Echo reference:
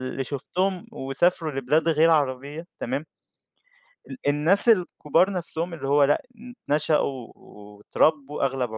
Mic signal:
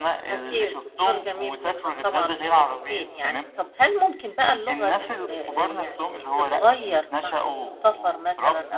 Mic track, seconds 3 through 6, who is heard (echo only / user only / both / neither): both